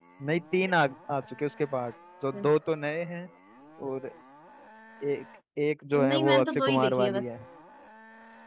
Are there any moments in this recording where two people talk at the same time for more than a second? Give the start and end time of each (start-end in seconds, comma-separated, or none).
6.0-7.3